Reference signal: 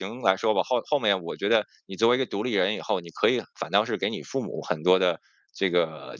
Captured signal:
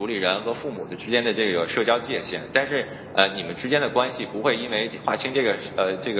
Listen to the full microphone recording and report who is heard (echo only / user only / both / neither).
user only